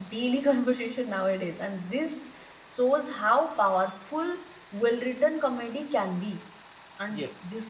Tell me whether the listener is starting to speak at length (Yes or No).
No